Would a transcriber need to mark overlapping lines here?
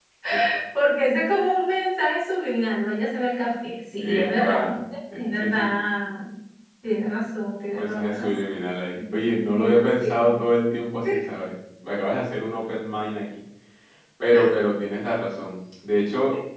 Yes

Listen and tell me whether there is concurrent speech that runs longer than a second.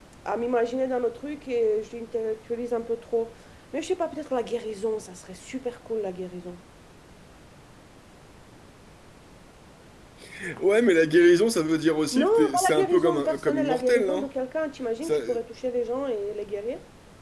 Yes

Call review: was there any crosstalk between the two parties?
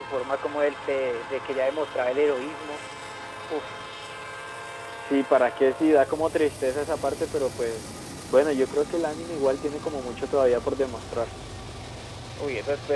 No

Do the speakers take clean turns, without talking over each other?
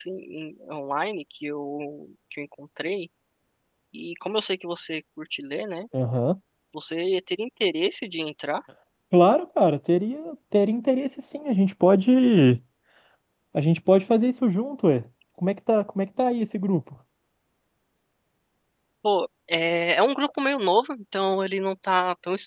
Yes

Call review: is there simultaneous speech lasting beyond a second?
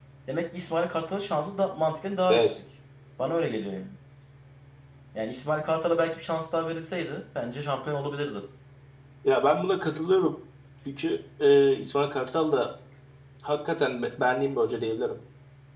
No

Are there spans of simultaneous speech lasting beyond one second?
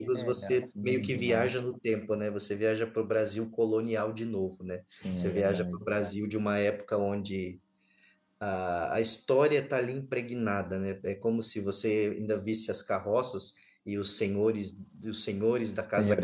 Yes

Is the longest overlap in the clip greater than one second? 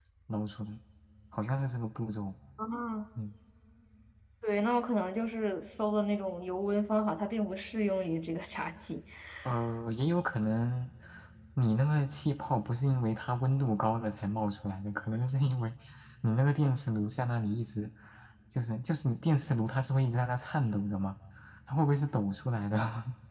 No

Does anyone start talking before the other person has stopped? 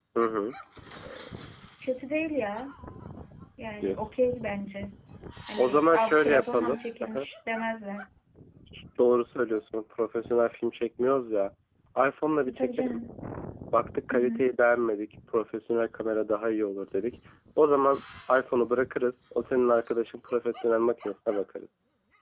Yes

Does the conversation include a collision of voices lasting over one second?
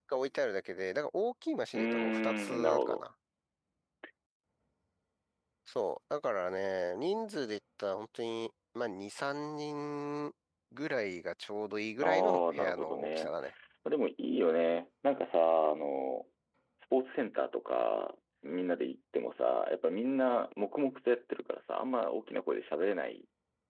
Yes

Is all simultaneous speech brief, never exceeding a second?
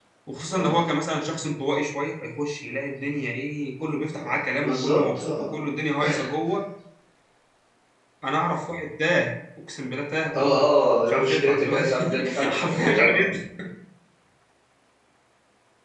No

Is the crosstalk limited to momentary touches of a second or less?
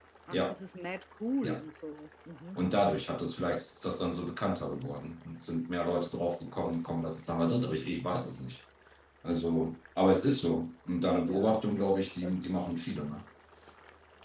Yes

